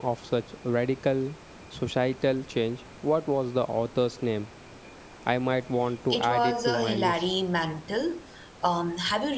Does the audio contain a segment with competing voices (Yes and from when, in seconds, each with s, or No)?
Yes, from 6.1 s